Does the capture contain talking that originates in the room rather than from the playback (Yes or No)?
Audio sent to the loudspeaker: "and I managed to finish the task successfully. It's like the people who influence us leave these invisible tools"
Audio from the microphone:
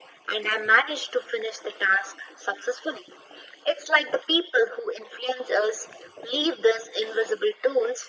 No